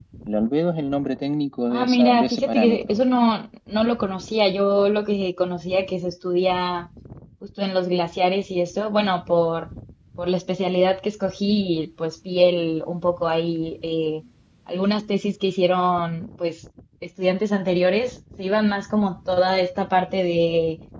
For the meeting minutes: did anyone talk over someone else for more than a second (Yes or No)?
Yes